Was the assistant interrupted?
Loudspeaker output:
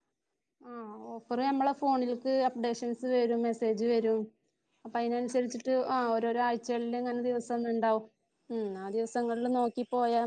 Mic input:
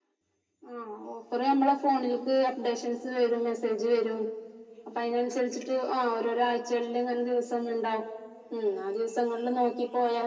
No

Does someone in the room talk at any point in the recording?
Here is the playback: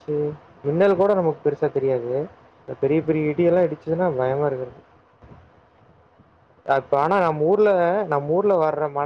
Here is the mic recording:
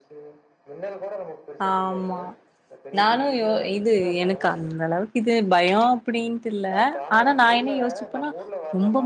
Yes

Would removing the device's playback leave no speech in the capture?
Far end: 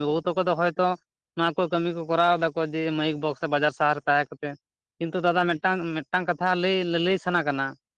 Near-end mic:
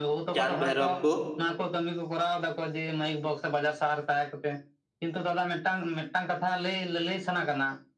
No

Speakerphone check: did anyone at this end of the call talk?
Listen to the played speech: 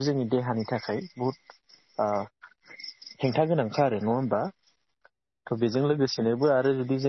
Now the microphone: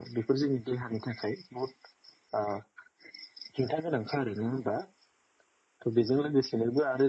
No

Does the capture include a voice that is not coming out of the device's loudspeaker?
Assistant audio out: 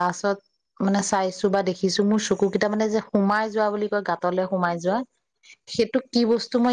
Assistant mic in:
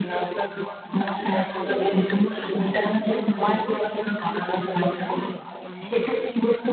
Yes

